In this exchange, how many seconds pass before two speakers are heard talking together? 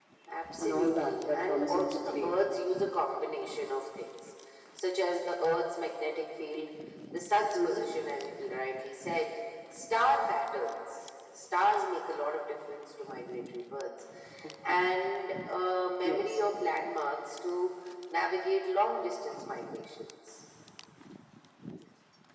0.6 s

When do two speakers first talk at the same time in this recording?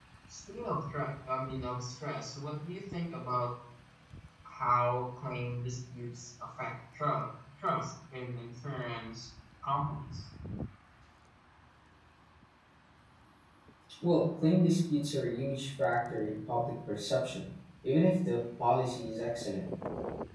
none

